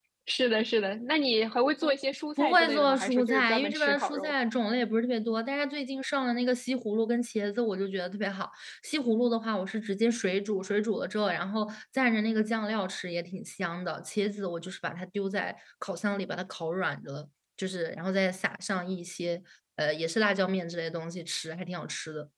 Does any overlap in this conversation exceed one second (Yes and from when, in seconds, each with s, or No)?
Yes, from 2.4 s